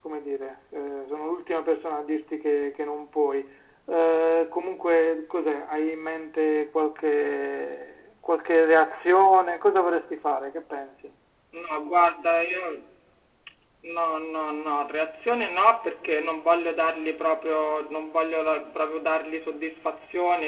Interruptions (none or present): none